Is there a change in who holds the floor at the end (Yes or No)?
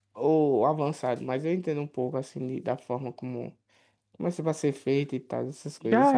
Yes